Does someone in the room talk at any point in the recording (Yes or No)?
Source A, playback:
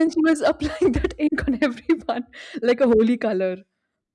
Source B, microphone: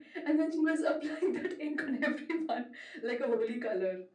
No